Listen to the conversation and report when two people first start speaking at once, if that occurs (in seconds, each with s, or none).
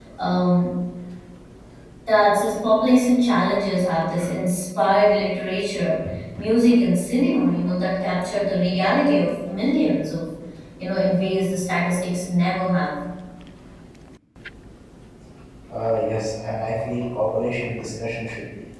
none